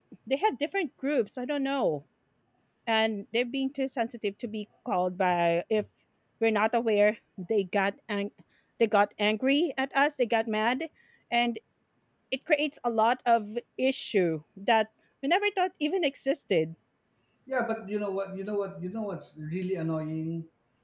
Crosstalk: none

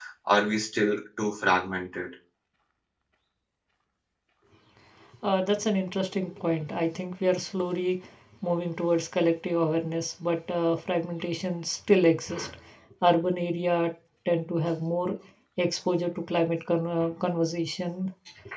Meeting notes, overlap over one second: none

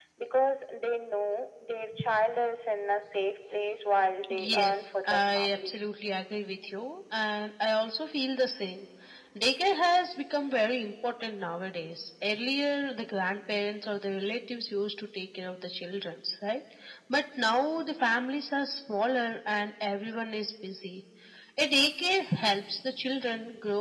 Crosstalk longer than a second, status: present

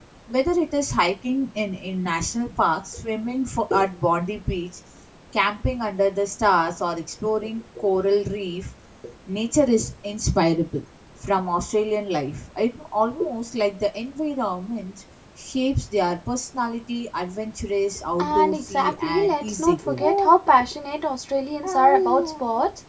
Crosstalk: present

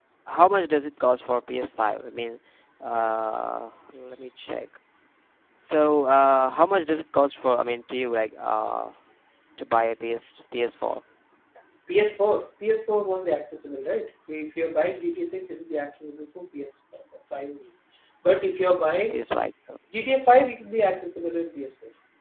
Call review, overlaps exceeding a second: none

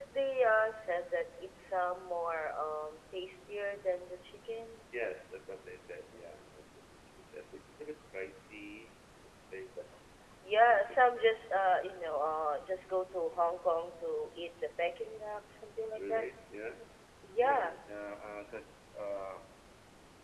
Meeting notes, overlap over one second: none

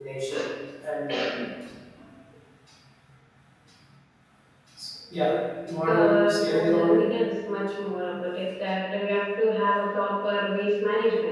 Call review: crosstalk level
present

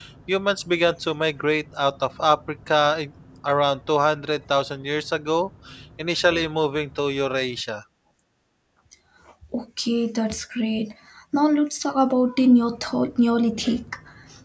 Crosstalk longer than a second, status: none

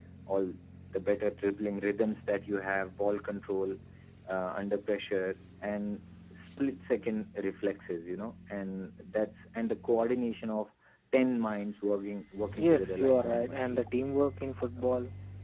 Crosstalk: present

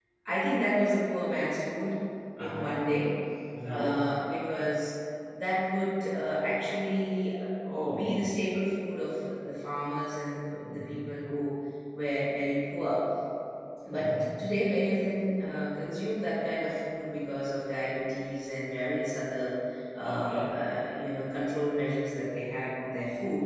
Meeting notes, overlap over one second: none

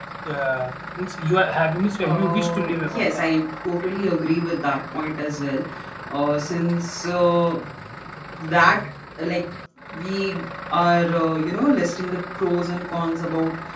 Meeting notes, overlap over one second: present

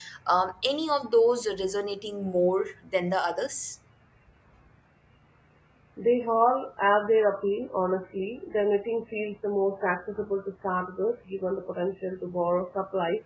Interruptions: none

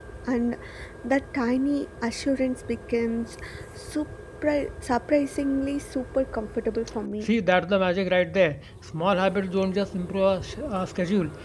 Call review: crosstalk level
none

